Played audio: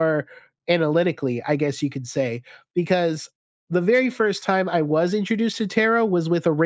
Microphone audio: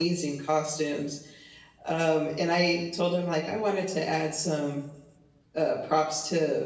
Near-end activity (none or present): present